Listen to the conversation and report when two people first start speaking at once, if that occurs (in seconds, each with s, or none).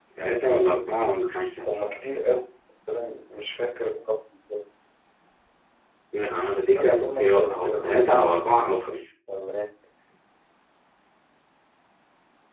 6.7 s